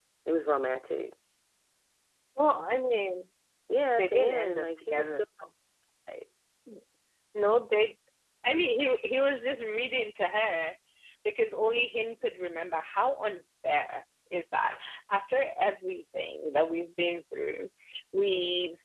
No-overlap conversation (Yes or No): No